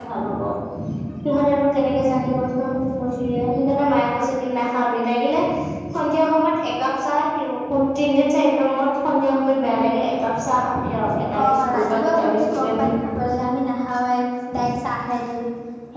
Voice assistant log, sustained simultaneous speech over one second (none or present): present